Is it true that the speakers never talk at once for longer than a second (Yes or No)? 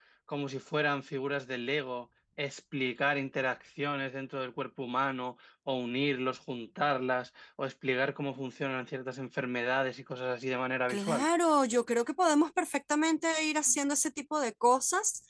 Yes